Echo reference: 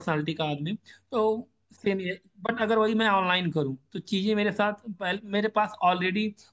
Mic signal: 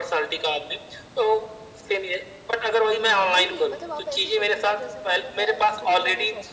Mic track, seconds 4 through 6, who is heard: both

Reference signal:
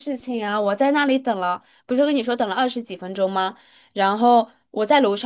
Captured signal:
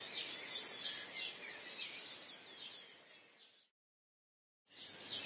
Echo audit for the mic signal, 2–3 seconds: neither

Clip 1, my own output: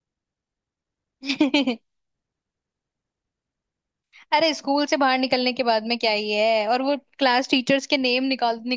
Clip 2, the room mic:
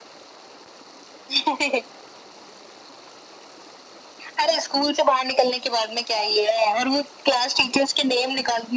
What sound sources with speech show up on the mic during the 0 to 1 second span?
neither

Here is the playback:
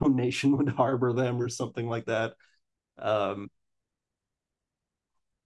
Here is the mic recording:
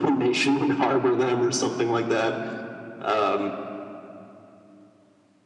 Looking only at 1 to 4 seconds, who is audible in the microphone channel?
echo only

